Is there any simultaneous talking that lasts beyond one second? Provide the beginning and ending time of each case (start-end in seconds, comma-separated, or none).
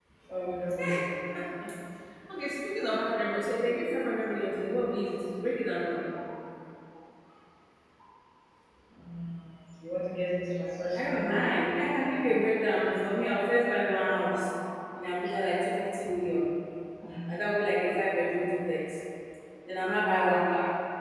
10.9-12.5